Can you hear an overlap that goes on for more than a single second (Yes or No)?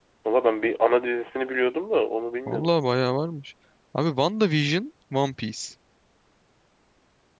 No